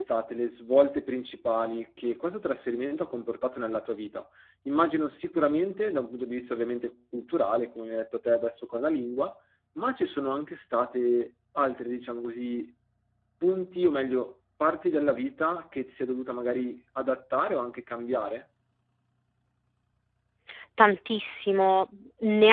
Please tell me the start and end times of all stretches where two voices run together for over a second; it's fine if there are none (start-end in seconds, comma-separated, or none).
none